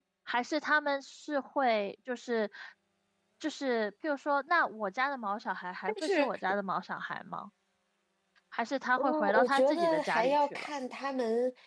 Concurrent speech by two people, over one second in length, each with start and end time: 9.0-10.7

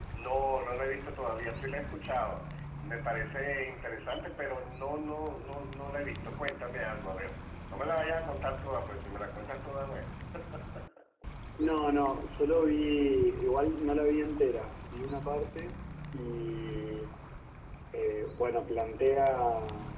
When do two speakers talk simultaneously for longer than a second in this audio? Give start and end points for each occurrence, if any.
none

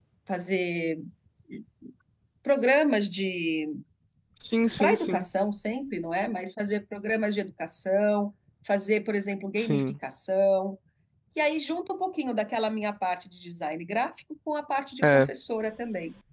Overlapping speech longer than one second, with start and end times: none

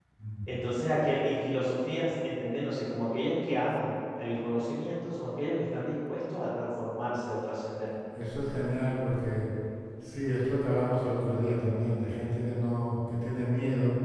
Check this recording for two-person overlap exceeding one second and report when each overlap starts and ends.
none

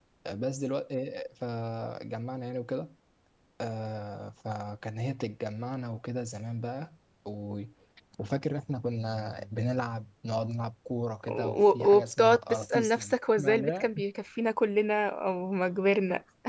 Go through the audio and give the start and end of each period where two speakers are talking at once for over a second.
11.3-13.9

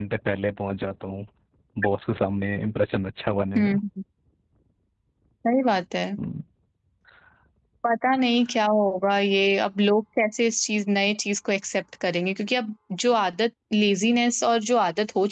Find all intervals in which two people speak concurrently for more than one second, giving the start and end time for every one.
none

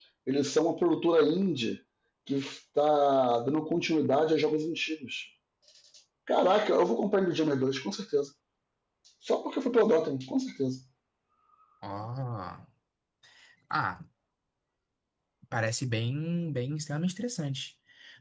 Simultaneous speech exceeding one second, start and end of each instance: none

